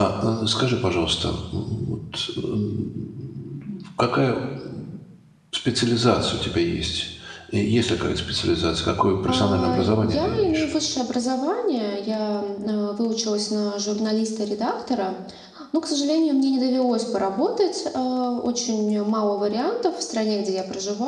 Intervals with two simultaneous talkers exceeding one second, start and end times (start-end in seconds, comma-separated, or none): 9.3-10.6